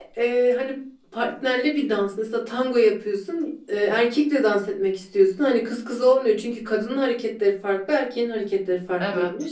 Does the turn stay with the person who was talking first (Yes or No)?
Yes